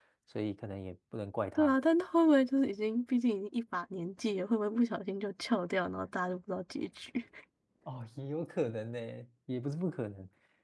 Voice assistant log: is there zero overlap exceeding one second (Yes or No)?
Yes